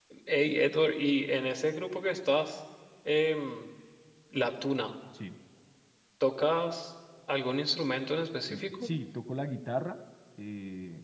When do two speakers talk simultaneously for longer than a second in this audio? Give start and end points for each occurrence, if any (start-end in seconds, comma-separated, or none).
none